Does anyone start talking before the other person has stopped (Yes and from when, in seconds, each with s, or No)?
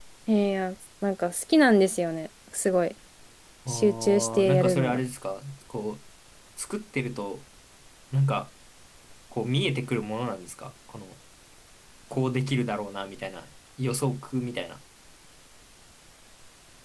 Yes, from 3.7 s